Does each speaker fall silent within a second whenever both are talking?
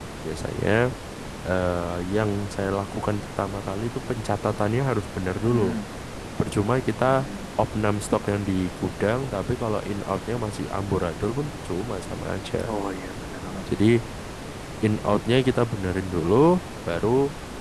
Yes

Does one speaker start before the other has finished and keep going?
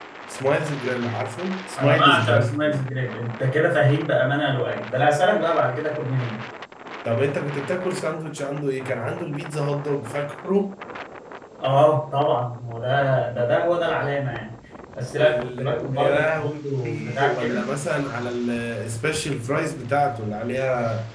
Yes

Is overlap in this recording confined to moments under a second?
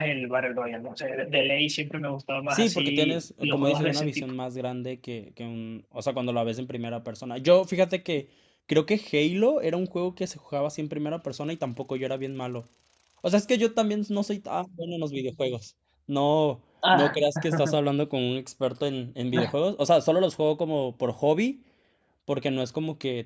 No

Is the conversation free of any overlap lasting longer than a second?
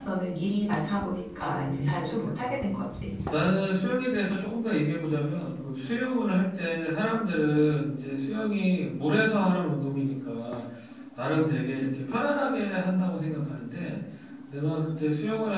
No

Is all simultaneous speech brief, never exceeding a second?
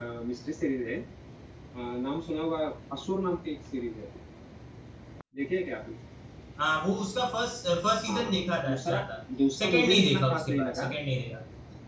No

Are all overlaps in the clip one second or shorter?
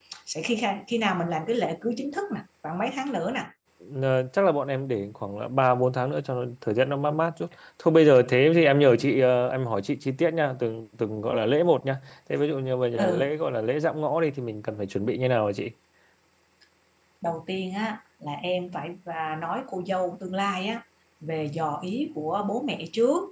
Yes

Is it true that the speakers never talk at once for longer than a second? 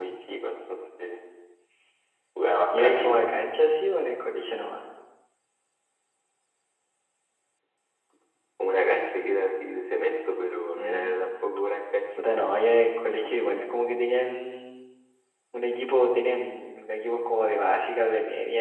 Yes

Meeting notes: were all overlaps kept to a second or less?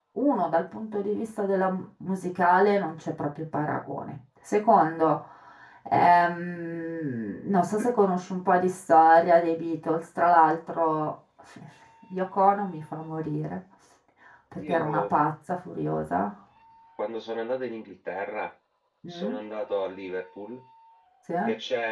Yes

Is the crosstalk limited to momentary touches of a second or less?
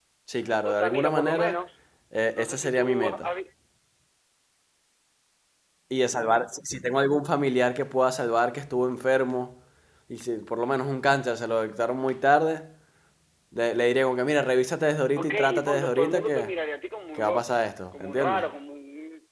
No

